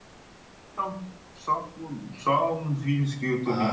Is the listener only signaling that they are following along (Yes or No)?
No